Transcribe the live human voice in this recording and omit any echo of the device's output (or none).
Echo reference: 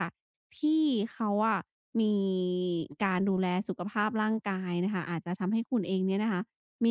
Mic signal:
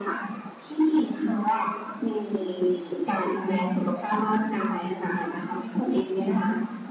none